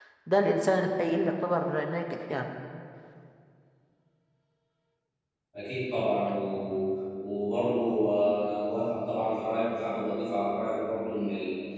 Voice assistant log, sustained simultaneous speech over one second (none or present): none